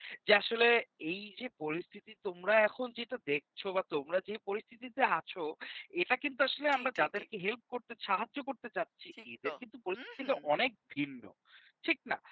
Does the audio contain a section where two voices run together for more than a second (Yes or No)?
No